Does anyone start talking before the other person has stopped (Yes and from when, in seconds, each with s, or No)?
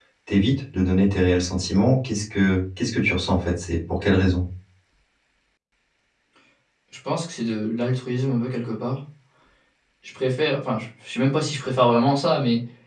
No